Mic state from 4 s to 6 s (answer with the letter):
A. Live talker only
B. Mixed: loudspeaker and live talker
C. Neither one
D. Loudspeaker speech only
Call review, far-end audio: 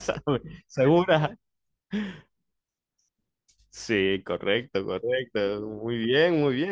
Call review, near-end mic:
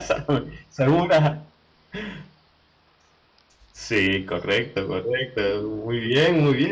D